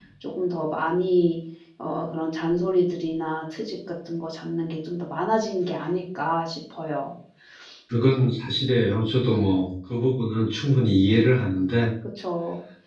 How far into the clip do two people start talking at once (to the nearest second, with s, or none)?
none